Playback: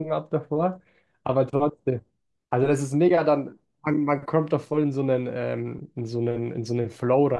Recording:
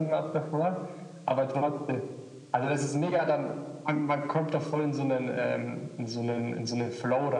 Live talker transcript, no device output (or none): none